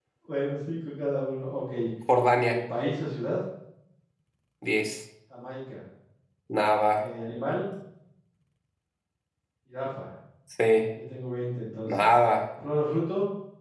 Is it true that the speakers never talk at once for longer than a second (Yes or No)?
Yes